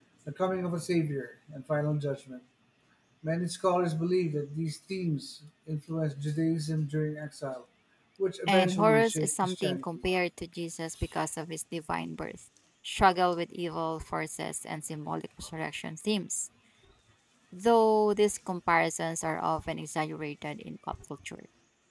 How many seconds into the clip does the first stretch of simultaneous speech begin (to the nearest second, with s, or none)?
8 s